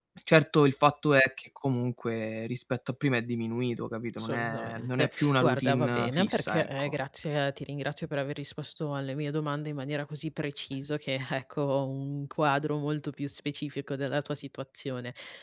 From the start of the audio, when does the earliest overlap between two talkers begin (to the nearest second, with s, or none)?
4 s